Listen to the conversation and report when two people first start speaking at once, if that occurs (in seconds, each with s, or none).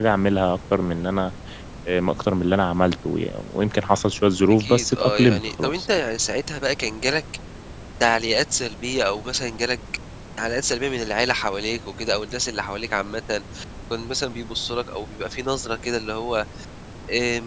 4.5 s